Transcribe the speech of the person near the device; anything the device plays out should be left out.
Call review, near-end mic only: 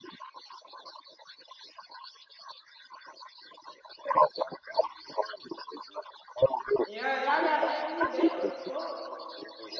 Yeah, y'all gotta add me back. What the fuck?

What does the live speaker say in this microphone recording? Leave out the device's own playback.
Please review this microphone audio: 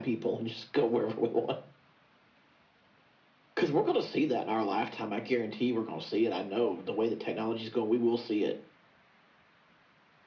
none

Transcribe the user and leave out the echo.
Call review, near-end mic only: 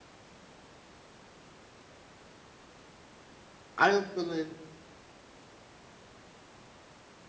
I am feeling

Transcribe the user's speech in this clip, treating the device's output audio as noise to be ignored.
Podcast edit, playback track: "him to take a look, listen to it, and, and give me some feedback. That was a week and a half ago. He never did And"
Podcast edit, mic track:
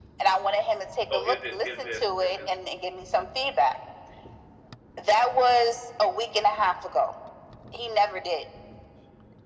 So is it is it is it

